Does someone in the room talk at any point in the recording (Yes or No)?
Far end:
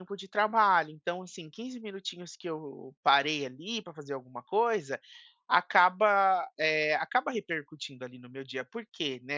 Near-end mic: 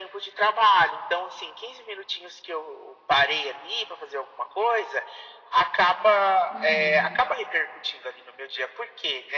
Yes